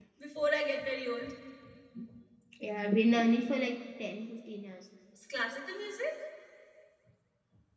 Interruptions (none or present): none